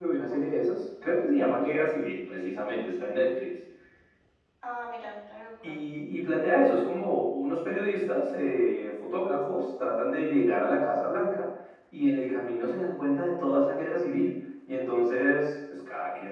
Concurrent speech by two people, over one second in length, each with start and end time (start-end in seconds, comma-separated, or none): none